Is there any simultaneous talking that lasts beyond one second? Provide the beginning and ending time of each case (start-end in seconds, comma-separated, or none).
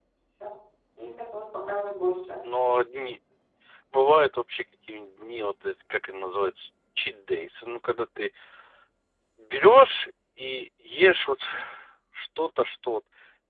none